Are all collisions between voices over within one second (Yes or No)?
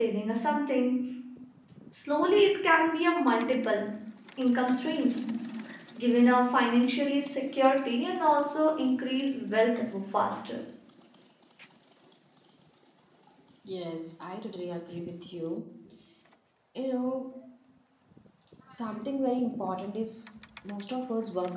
Yes